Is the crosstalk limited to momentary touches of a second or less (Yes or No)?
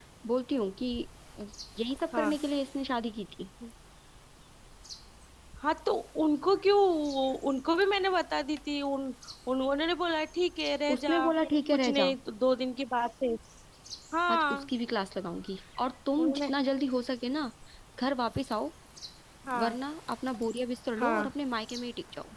Yes